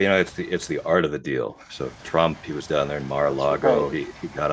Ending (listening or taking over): listening